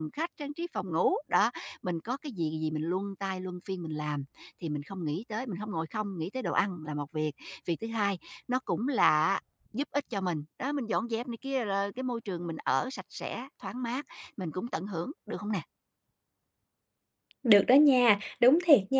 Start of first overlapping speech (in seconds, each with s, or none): none